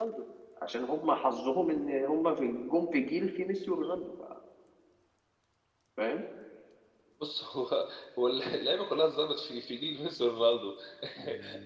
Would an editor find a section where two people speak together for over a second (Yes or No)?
No